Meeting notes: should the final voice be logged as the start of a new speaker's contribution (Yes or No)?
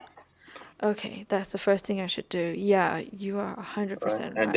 Yes